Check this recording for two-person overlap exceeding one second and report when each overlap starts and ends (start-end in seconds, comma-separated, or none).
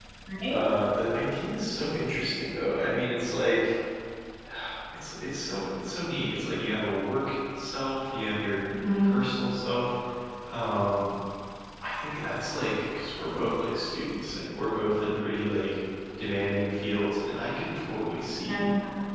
none